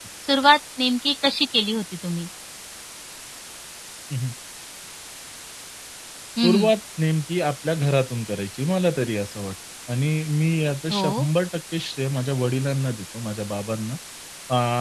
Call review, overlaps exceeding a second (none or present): none